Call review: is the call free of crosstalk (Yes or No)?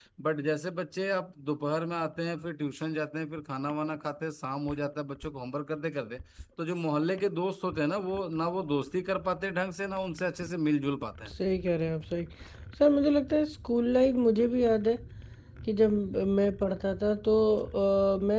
Yes